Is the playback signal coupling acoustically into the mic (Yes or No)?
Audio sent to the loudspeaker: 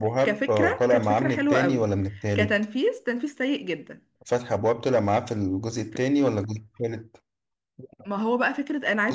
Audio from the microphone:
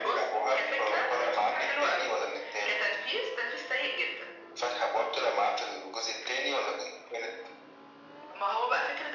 Yes